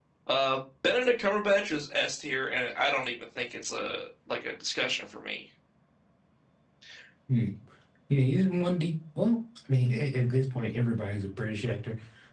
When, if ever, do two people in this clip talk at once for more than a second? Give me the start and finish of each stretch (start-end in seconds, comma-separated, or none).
none